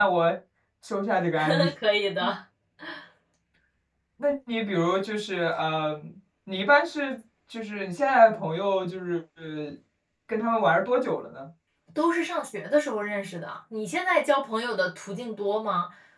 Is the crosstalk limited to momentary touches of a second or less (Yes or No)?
Yes